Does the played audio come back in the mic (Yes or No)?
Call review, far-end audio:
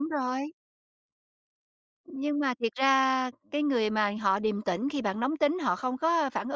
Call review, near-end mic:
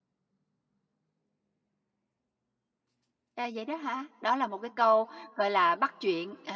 No